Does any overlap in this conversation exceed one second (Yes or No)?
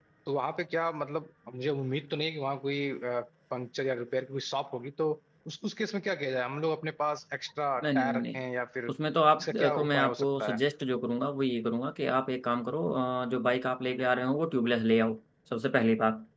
Yes